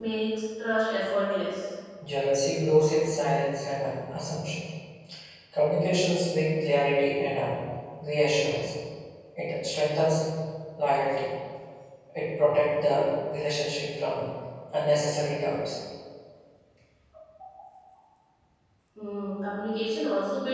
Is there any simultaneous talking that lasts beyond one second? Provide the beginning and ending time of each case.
none

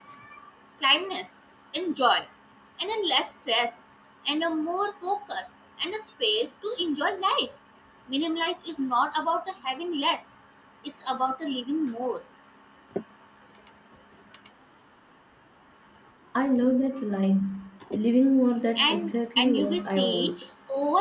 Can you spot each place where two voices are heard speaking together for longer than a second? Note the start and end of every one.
18.8-20.3

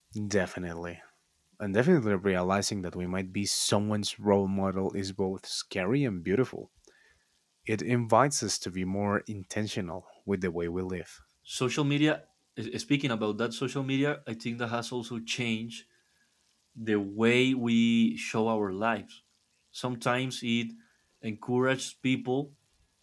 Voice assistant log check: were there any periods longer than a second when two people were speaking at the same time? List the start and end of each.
none

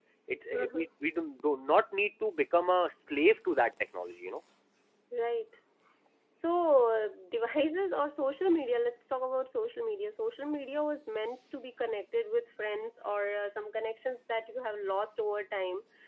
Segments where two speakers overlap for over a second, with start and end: none

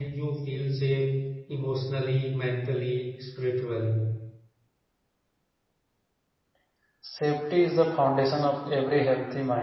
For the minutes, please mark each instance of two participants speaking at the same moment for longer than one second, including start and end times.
none

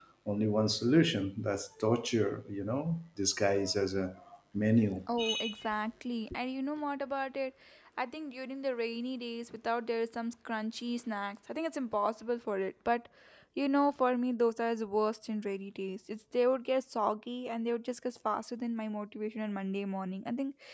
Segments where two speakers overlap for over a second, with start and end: none

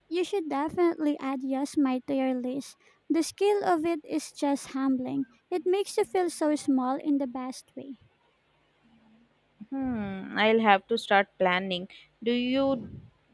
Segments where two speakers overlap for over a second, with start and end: none

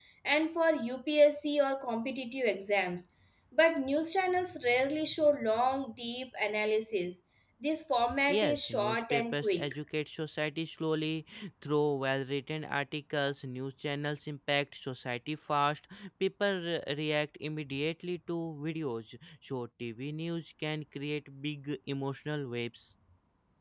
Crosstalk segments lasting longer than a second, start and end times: 8.3-9.7

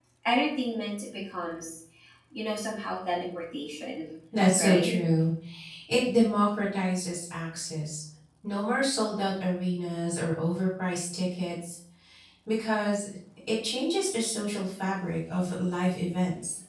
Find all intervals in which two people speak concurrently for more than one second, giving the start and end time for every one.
none

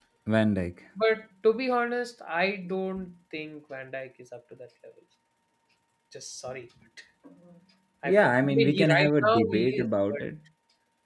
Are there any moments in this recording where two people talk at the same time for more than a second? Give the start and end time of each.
8.0-10.2

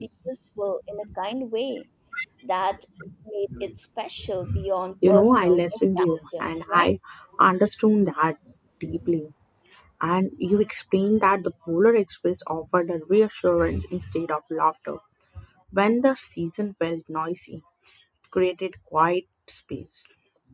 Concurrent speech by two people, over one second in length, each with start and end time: 5.1-6.8

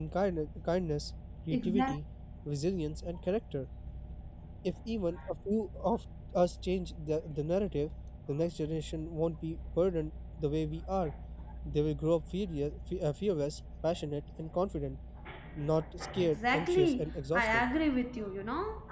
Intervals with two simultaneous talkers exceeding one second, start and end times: 16.2-17.6

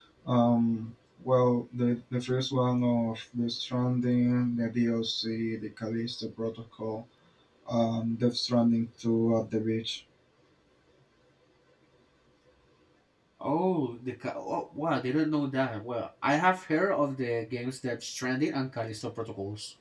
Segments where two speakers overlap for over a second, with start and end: none

